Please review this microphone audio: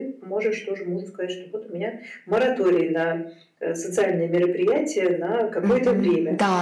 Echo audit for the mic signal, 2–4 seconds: echo only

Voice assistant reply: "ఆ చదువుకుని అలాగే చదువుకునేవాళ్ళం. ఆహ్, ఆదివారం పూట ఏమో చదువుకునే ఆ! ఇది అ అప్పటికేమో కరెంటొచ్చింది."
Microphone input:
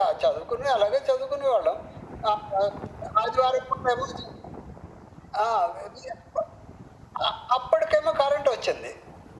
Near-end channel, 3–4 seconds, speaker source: echo only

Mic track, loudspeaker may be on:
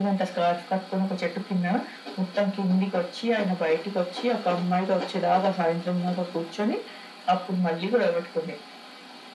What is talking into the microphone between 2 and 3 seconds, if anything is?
echo only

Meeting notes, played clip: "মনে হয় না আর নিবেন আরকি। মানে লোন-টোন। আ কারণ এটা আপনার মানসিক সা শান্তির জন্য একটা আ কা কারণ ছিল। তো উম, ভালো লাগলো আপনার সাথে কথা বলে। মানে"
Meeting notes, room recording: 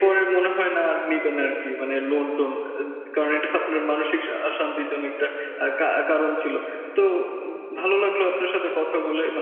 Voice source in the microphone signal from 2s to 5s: echo only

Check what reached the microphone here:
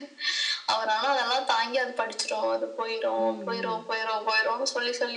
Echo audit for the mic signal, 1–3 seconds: echo only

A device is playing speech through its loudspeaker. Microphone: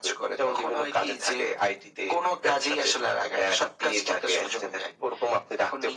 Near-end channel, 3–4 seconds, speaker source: echo only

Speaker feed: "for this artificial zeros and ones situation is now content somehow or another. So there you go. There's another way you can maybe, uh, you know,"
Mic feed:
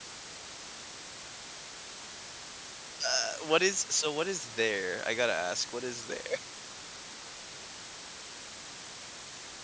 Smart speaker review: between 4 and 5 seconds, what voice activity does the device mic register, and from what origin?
user only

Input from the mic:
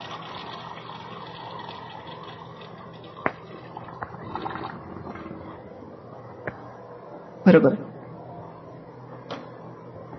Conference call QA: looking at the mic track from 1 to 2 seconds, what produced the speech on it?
neither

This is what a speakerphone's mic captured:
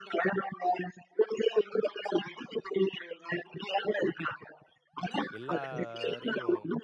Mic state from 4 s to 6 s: both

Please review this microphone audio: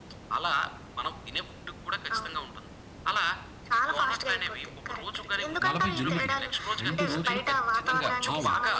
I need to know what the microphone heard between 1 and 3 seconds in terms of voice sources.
echo only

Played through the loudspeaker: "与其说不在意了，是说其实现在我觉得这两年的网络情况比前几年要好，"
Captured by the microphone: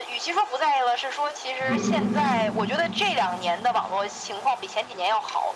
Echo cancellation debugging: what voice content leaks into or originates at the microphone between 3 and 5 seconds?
echo only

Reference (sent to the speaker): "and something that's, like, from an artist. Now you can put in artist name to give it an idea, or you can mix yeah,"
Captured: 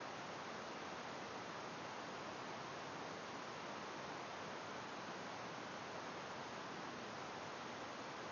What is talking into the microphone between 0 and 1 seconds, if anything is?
neither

